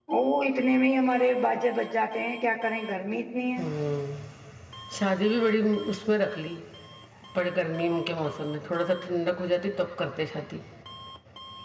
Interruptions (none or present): none